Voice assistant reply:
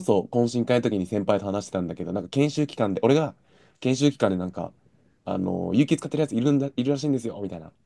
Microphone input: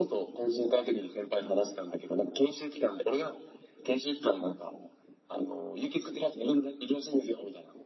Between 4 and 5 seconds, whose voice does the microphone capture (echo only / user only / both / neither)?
echo only